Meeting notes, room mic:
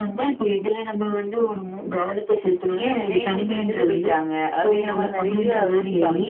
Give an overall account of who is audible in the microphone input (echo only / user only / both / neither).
both